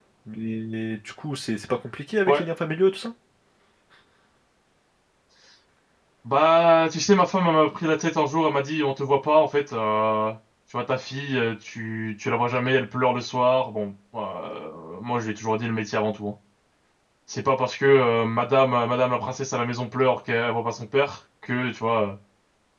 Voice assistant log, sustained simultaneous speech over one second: none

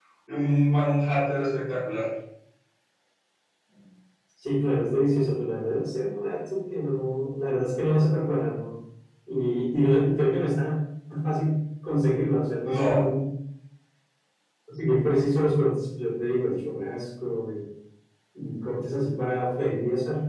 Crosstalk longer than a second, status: none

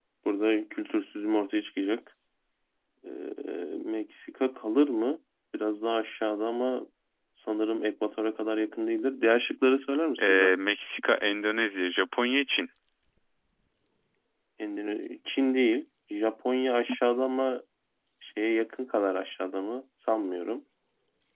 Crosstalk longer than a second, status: none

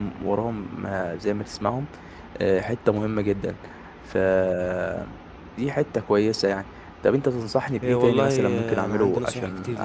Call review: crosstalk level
present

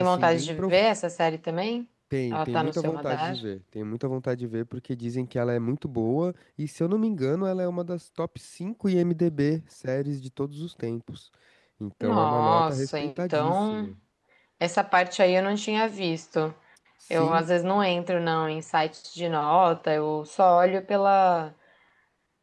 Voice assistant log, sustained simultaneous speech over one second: present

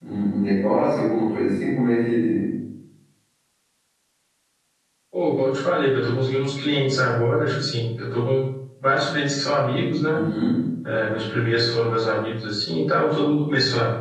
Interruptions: none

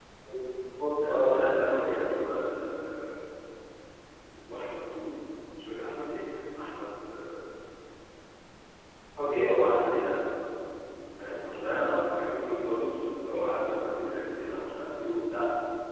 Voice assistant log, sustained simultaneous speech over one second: none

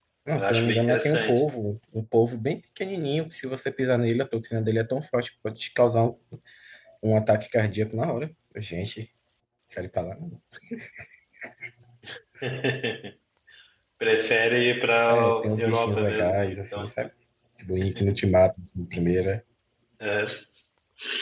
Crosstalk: present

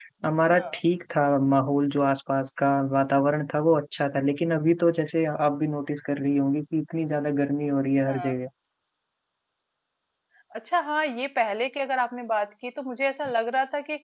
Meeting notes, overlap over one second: none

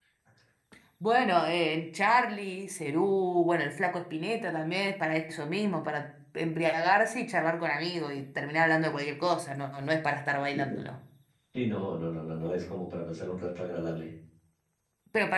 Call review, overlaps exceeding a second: none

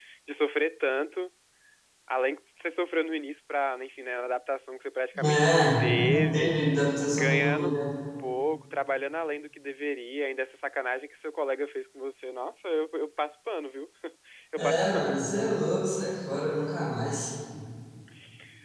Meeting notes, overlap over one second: present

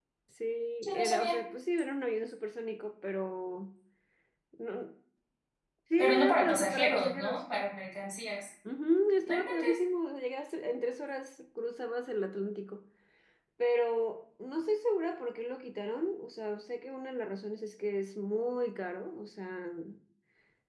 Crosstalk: present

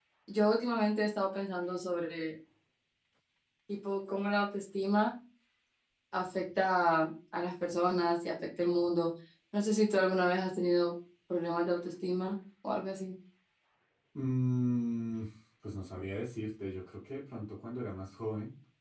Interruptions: none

